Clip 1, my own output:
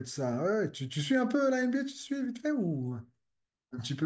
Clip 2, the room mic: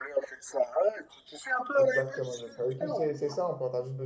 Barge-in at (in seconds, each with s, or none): 1.8 s